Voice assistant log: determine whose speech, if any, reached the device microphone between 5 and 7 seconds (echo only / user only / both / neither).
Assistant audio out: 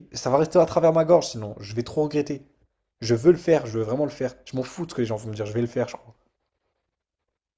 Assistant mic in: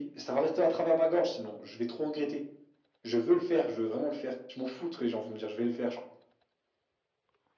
echo only